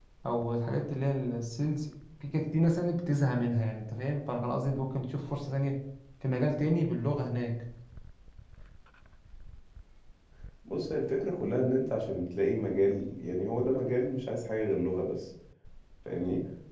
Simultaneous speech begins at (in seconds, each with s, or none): none